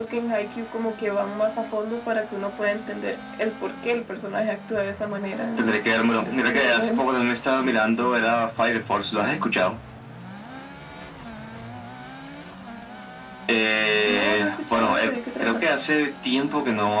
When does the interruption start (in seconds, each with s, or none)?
5.6 s